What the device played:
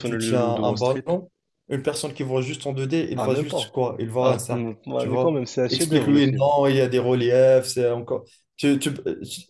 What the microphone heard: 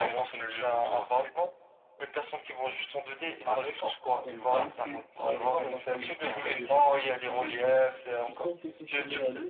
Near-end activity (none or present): present